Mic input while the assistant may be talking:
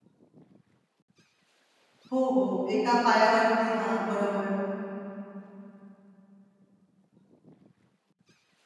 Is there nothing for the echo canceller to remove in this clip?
Yes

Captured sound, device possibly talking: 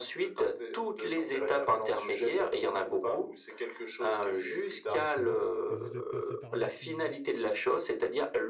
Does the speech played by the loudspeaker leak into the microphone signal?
Yes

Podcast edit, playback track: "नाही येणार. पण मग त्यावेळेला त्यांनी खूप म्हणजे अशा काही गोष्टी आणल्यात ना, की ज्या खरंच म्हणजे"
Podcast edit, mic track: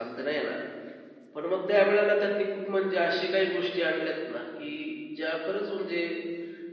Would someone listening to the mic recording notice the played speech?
Yes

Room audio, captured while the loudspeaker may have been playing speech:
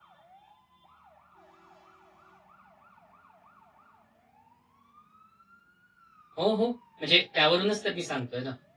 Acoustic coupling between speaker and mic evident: No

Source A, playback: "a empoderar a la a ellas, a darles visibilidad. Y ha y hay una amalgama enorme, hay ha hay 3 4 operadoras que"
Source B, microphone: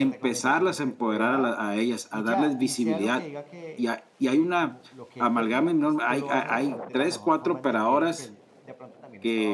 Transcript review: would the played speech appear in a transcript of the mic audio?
Yes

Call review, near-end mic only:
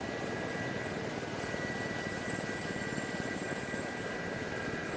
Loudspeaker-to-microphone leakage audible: No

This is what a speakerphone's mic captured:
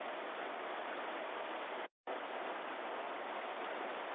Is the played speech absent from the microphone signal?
Yes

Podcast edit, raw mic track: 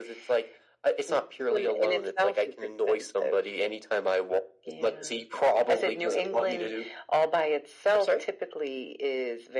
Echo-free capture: No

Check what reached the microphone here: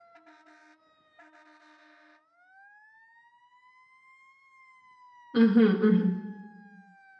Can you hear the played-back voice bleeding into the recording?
No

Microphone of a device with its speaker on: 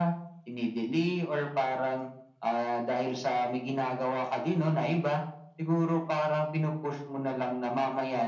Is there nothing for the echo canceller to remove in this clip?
No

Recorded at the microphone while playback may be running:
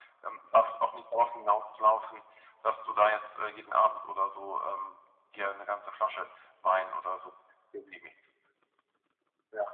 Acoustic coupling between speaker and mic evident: Yes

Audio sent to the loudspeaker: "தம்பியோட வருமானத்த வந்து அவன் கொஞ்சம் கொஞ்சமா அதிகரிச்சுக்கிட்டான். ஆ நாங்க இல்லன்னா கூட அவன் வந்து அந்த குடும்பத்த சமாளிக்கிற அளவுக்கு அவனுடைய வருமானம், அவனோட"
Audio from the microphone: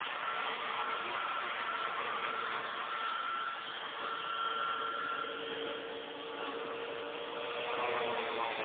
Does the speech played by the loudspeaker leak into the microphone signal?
No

